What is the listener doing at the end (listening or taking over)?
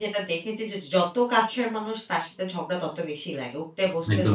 taking over